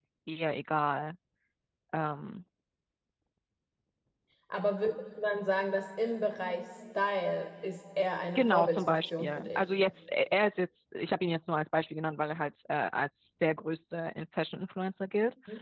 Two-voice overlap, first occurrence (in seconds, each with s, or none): 8.3 s